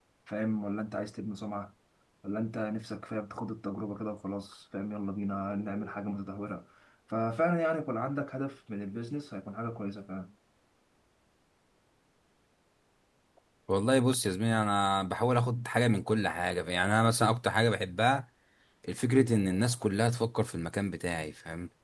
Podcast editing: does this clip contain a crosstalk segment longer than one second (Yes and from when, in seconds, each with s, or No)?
No